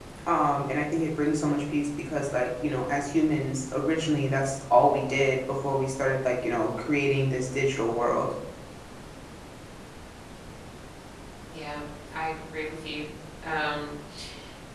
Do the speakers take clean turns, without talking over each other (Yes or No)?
Yes